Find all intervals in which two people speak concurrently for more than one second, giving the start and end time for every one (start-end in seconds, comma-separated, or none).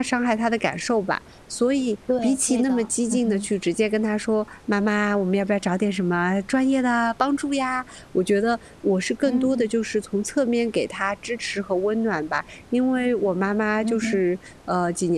2.2-3.5